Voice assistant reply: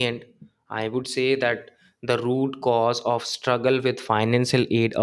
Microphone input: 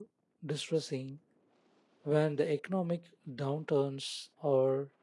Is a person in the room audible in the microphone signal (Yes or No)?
Yes